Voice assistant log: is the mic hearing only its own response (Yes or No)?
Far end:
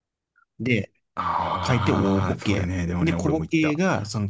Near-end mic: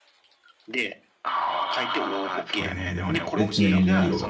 No